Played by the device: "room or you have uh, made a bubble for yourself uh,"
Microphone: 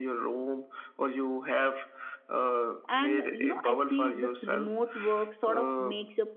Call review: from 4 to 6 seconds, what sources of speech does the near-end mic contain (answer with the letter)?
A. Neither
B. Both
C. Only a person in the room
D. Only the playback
B